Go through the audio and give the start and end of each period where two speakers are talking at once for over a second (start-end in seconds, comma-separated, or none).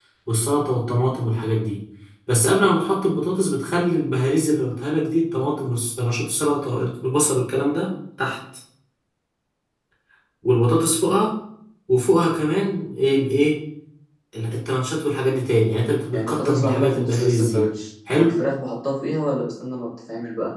16.1-17.6